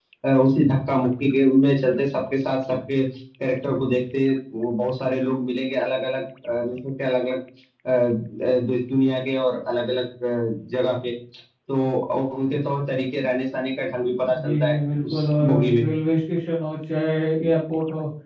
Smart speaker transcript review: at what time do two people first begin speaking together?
14.3 s

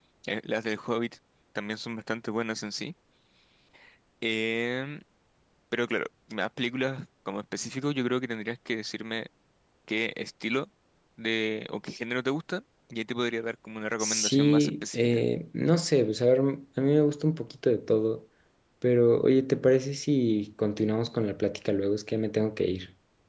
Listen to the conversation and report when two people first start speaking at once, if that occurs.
14.0 s

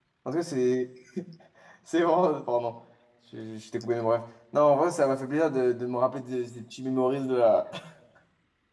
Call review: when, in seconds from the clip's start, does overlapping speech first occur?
none

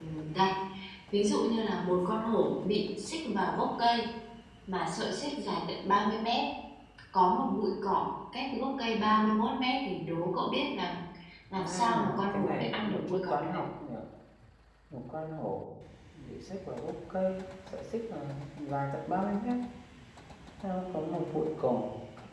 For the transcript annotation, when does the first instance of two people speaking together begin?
11.6 s

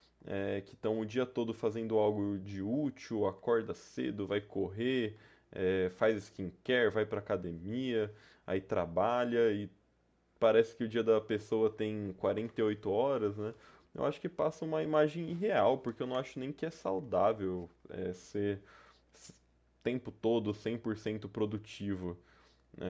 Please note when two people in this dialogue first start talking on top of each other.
none

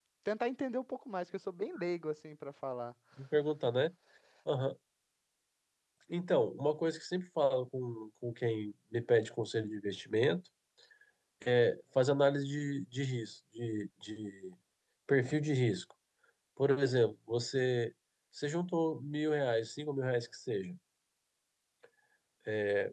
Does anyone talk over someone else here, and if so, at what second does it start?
none

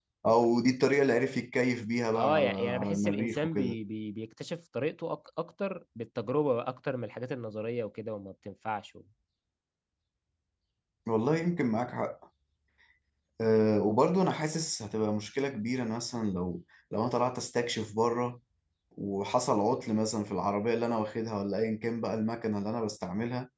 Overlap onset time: 2.1 s

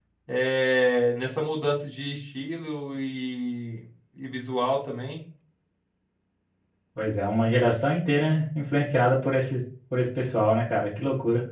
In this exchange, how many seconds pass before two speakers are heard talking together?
none

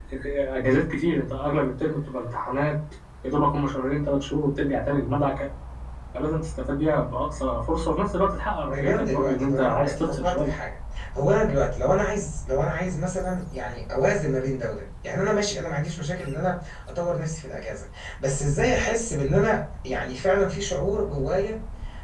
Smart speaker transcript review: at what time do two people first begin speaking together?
8.7 s

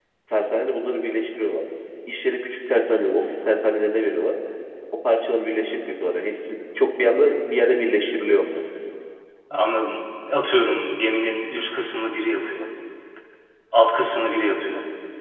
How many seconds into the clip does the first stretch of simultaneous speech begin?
none

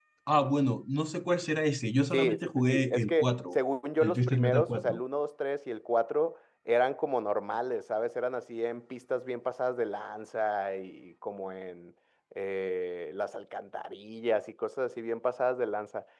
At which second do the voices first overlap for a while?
2.1 s

